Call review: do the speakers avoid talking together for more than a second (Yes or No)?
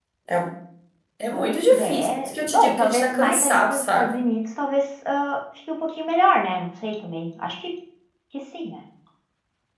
No